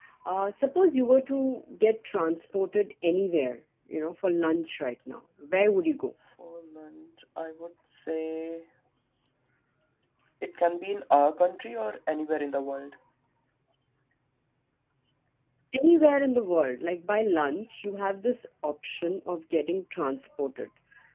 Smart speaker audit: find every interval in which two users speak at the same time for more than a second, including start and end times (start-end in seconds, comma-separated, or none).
none